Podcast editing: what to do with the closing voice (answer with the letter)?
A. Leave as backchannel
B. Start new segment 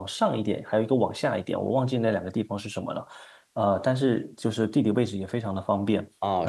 B